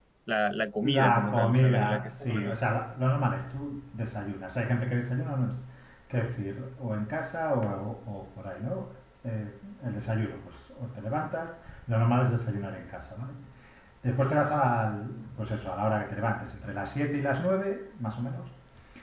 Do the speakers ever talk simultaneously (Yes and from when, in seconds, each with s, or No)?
Yes, from 0.8 s